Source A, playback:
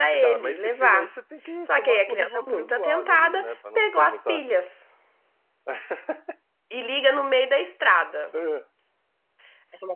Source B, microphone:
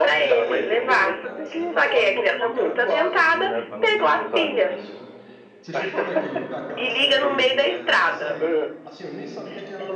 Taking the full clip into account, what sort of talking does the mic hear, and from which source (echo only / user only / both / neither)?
both